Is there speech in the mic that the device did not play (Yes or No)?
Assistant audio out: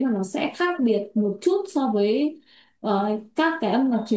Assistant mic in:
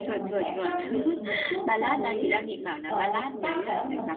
Yes